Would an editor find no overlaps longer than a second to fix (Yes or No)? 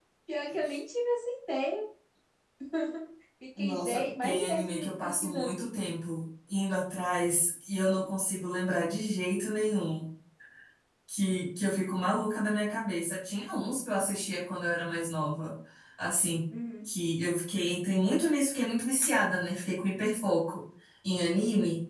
No